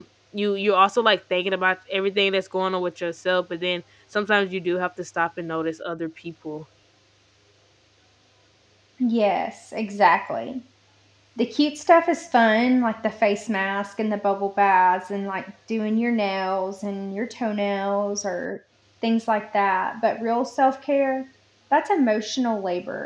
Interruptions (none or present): none